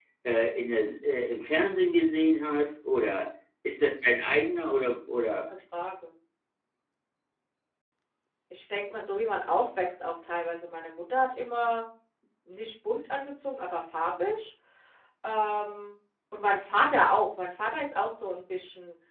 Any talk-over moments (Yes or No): No